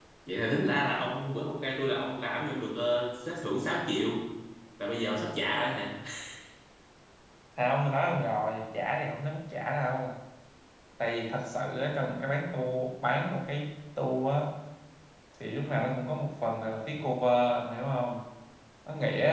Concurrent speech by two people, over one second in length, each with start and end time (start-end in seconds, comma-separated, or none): none